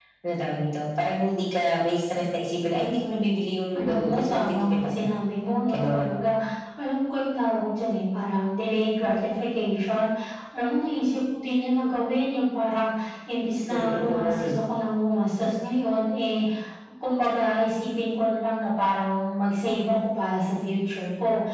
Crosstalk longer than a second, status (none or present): present